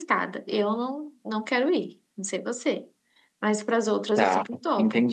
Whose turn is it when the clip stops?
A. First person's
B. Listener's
B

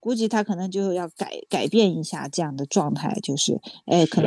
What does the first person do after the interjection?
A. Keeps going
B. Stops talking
A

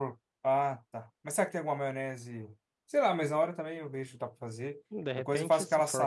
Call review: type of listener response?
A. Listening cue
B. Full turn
B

